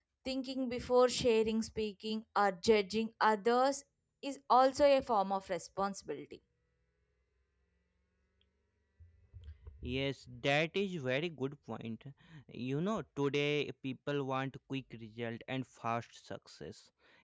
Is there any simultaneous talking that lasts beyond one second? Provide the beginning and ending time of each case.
none

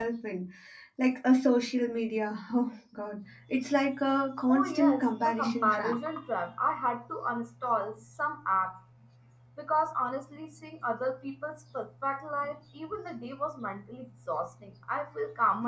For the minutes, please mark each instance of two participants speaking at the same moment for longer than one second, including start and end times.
4.5-5.9

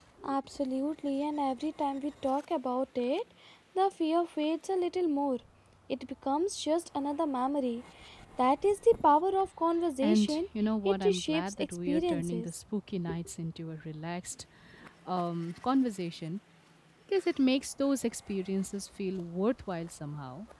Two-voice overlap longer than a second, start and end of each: 10.8-12.5

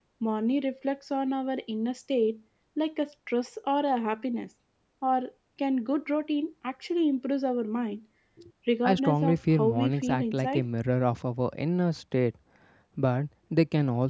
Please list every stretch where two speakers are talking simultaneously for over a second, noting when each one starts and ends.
8.8-10.7

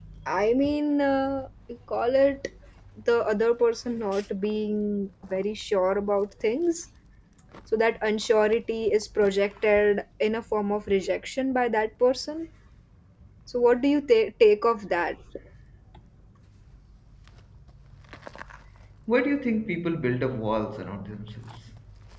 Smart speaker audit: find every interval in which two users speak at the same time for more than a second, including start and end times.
none

